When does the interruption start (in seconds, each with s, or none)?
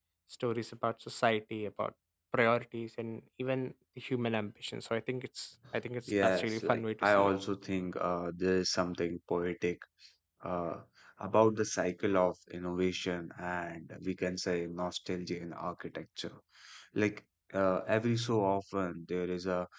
6.1 s